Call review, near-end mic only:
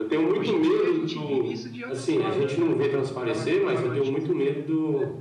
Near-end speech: present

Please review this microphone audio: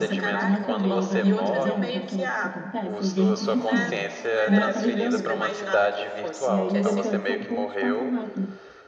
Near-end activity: present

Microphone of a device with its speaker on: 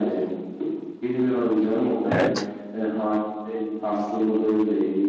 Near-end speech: present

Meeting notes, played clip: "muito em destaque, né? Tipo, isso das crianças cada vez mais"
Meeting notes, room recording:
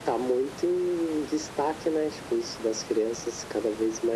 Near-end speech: none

